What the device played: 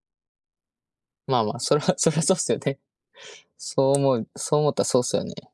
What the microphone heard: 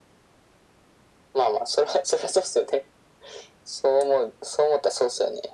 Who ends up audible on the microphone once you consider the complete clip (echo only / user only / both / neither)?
echo only